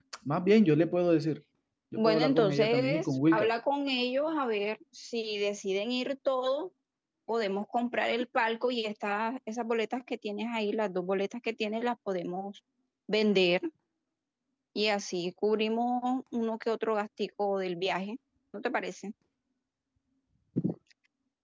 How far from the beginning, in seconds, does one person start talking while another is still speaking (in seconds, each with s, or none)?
2.0 s